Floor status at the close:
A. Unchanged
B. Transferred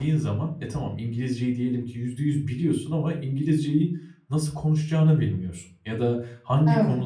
A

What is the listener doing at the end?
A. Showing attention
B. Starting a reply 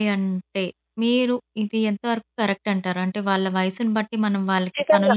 B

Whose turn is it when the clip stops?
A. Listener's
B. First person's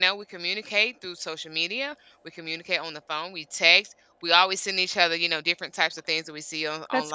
B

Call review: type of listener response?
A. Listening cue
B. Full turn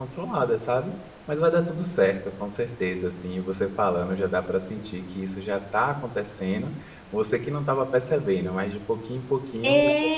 B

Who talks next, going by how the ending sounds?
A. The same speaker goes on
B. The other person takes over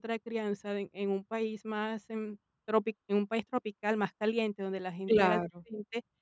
A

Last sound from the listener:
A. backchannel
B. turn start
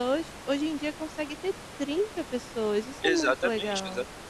B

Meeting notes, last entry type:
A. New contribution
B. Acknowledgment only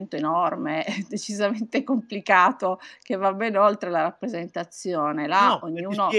A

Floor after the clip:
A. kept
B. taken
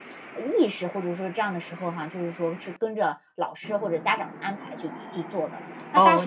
B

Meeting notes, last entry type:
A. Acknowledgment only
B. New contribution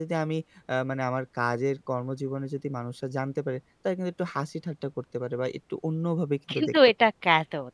B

